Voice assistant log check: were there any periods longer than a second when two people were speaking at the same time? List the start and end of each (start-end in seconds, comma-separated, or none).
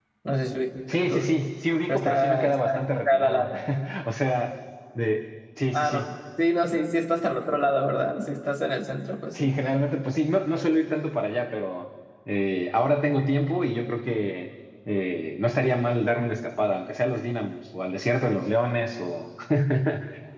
1.9-3.5